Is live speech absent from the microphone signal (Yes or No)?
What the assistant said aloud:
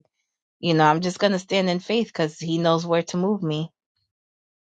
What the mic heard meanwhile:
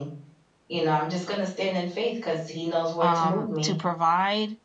No